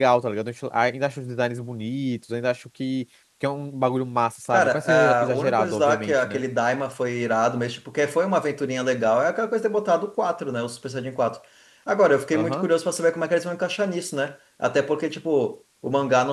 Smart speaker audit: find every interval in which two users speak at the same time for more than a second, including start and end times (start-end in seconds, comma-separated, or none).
4.5-6.4